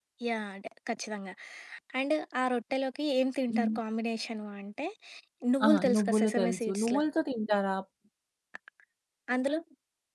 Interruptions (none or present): present